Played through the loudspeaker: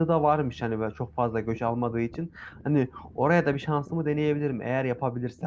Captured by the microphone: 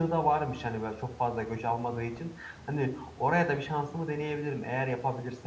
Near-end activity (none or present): none